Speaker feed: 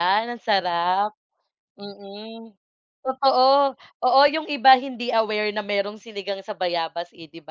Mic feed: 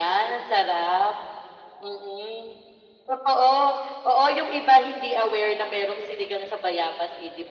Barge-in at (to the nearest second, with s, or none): none